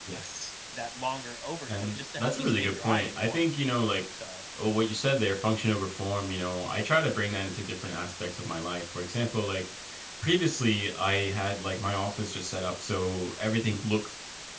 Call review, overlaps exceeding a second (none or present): present